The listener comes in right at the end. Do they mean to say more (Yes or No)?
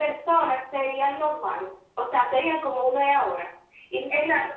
Yes